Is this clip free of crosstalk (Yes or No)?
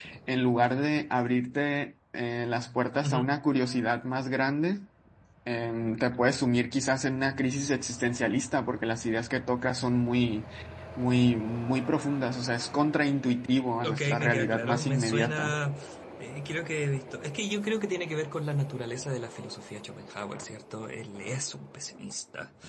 No